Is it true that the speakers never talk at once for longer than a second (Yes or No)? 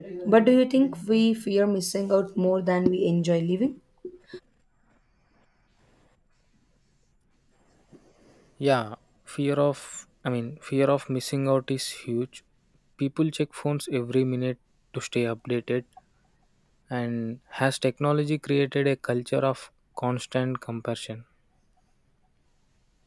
Yes